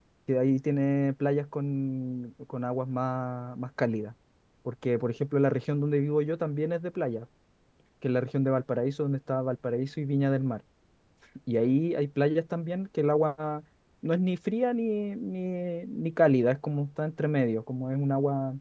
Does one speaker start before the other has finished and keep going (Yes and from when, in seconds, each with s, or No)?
No